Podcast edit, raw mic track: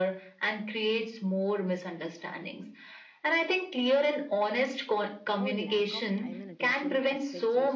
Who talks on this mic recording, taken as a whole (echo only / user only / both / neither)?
both